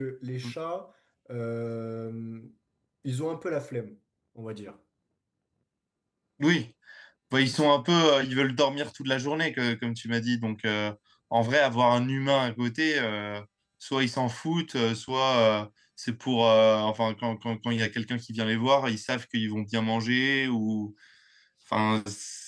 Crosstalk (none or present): none